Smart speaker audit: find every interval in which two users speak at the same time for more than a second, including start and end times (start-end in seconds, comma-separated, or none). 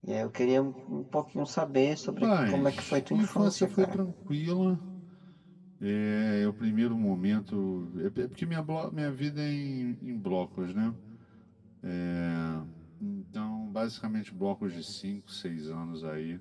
2.2-4.0